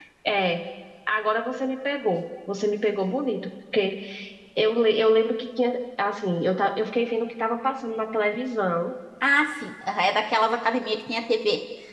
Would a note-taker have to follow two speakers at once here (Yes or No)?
No